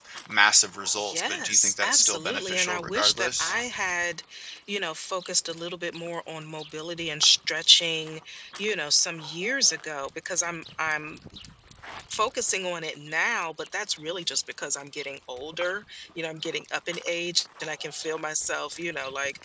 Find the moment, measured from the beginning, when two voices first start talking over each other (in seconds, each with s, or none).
1.1 s